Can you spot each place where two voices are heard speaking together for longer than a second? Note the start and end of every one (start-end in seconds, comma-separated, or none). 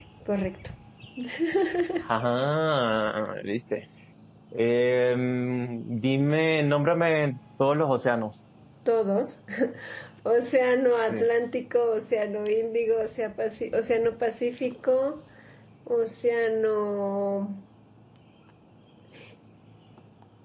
none